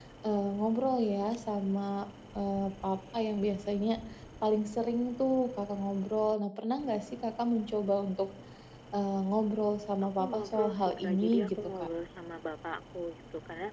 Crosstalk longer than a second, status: present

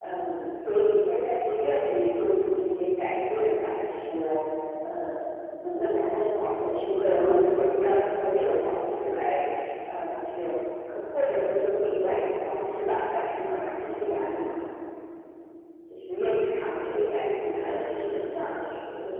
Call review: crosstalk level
present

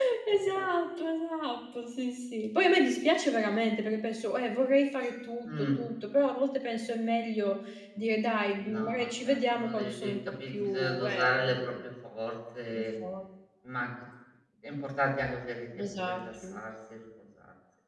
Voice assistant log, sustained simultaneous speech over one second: present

